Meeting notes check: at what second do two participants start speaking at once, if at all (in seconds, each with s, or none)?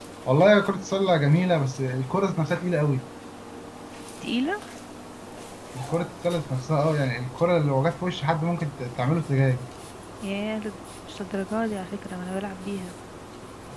none